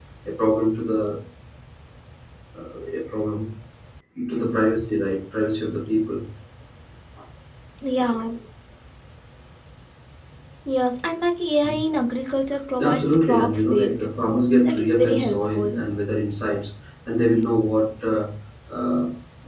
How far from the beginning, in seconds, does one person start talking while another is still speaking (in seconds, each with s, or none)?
12.8 s